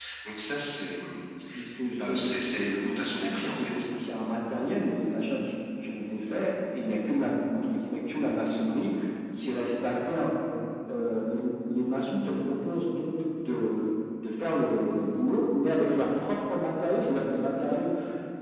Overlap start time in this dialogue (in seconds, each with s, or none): 2.0 s